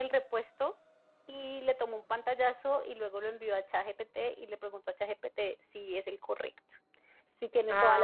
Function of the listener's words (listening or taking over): listening